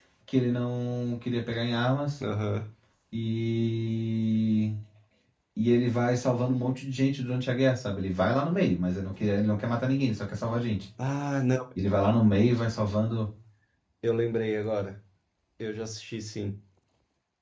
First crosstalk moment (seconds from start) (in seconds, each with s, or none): none